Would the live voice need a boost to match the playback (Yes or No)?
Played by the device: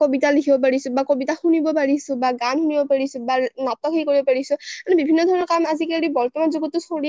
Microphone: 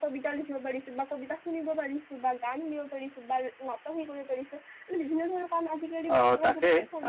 No